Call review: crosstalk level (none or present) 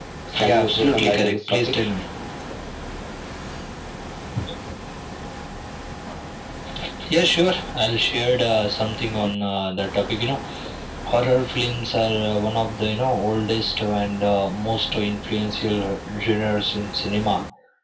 present